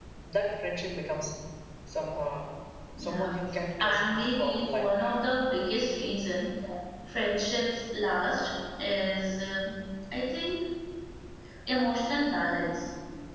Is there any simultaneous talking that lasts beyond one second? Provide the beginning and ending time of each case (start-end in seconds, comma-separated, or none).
3.8-5.2